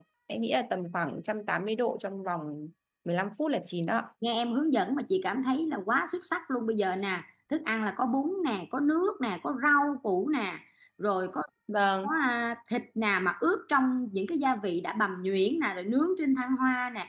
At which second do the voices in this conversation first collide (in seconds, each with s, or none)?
none